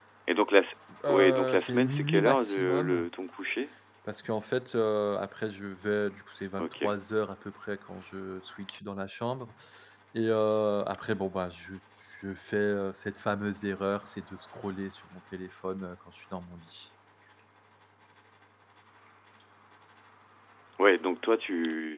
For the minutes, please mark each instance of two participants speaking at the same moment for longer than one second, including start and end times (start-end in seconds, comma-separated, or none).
1.1-3.1